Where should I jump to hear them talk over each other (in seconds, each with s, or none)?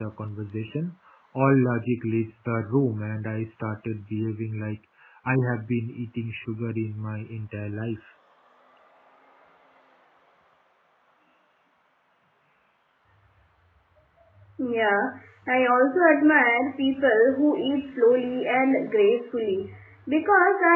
none